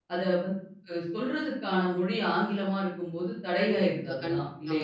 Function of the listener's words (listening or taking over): taking over